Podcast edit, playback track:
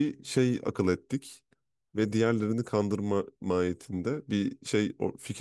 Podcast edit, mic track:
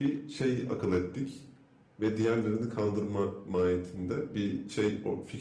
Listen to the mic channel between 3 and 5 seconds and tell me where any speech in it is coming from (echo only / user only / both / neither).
echo only